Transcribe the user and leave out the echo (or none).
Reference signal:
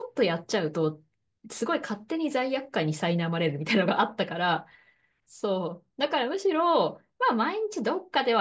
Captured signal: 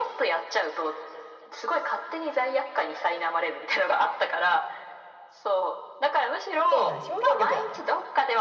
そうだね。表現力だね。